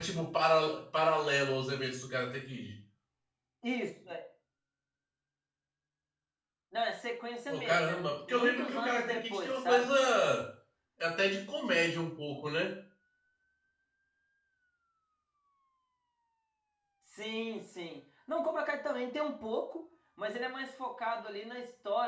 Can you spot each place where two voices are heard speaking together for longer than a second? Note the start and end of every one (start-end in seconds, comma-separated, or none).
7.5-9.9